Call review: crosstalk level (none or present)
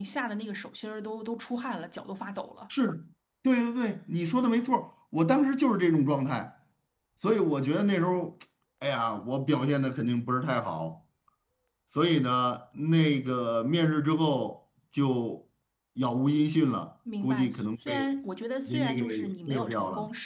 present